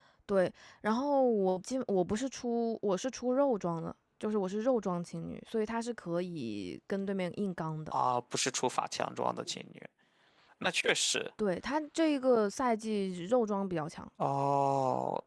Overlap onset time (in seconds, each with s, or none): none